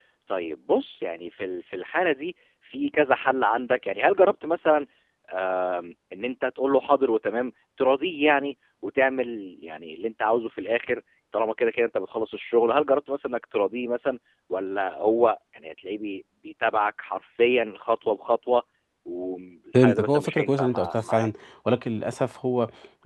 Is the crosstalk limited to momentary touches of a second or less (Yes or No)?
No